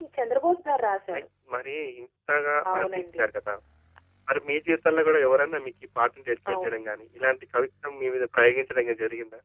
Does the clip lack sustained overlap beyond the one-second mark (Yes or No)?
Yes